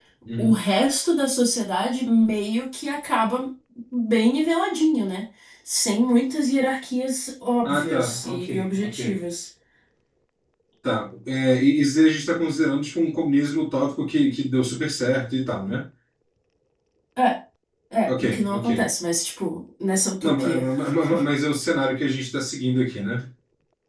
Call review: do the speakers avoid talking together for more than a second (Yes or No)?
No